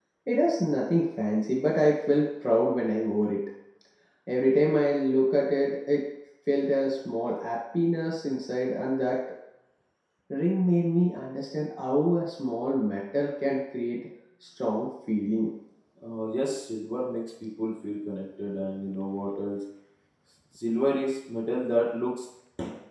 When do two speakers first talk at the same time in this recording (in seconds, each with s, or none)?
none